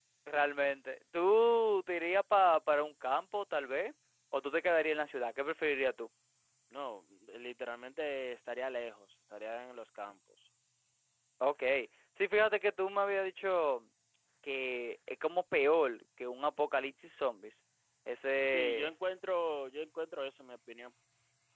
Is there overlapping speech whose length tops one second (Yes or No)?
No